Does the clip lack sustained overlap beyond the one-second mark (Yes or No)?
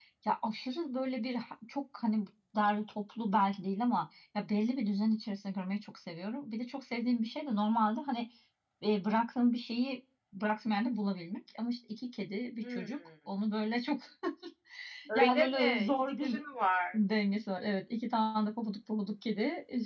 No